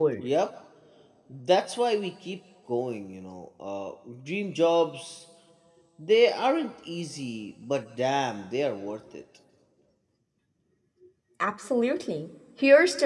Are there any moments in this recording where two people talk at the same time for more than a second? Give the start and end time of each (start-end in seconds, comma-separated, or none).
none